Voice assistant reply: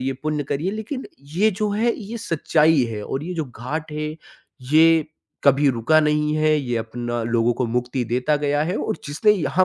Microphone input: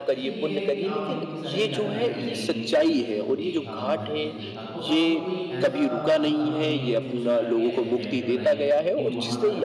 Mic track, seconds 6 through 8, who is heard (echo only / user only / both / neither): both